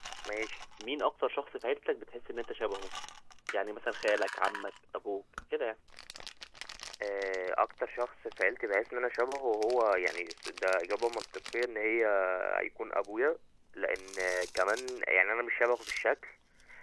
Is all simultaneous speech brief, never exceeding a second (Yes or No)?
Yes